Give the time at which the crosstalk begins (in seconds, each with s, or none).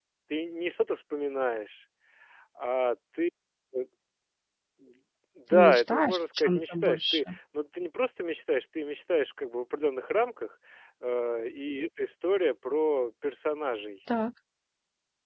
5.5 s